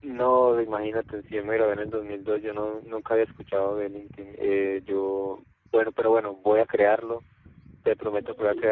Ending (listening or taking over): listening